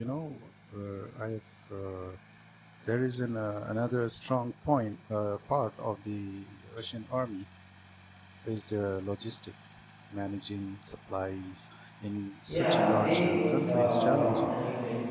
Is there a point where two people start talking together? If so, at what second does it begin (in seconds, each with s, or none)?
12.5 s